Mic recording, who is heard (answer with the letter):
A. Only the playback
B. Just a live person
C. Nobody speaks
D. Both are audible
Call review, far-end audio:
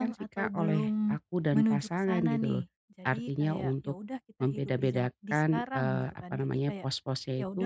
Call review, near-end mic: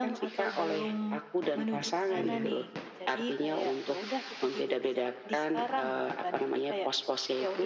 D